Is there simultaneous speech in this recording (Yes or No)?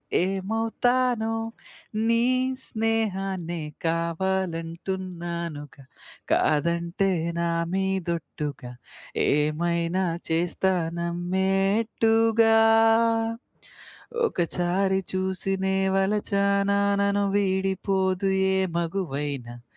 No